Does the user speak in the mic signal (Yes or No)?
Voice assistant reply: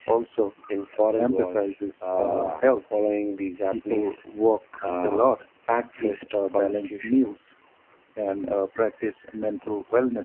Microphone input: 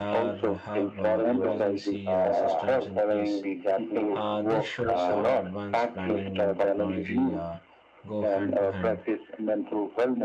Yes